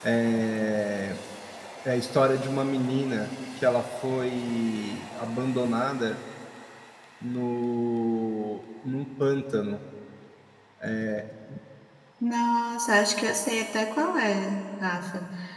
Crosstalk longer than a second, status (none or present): none